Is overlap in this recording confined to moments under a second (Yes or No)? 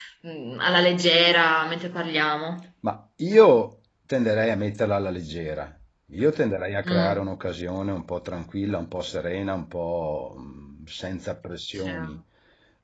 Yes